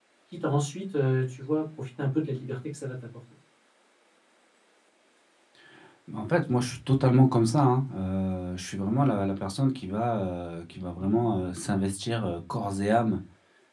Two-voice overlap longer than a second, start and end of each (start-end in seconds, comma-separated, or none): none